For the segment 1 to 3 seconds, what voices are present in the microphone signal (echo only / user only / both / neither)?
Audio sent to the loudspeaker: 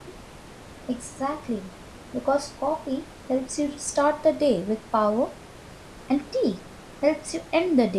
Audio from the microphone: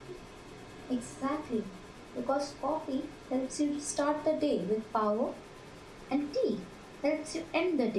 echo only